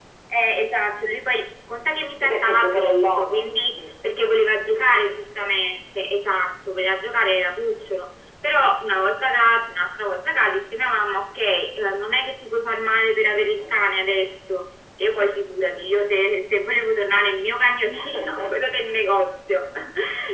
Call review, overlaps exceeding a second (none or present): present